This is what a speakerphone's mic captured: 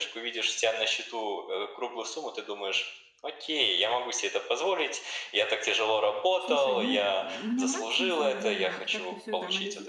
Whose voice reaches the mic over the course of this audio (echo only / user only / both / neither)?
both